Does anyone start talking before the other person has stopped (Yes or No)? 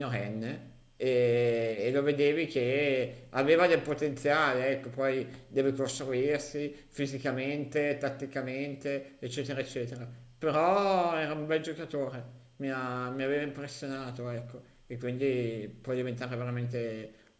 No